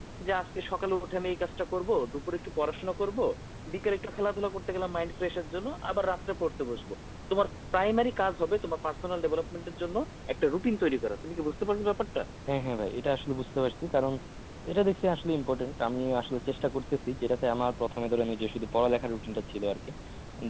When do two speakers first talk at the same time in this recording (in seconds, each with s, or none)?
none